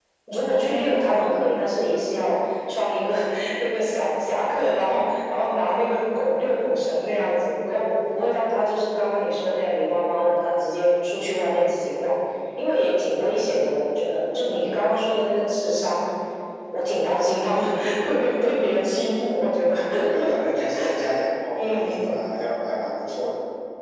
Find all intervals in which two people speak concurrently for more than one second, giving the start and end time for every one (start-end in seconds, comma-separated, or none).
none